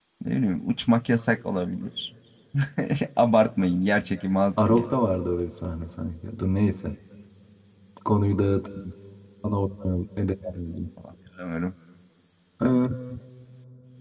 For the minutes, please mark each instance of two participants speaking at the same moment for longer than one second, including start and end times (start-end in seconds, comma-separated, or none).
none